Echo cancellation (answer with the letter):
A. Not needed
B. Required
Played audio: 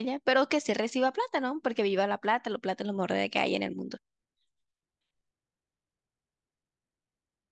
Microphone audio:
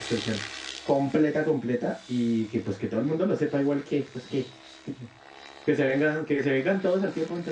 A